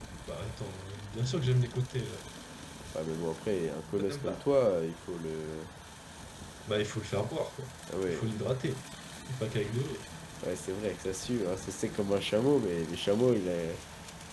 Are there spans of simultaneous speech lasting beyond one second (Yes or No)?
No